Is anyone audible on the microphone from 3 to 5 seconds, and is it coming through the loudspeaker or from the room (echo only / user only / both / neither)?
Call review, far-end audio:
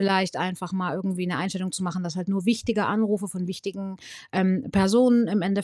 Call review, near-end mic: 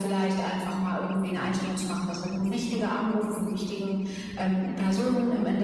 echo only